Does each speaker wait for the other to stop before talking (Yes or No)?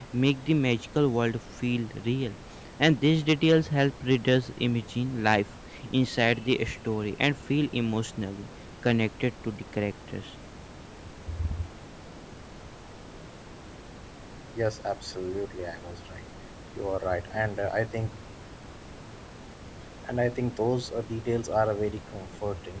Yes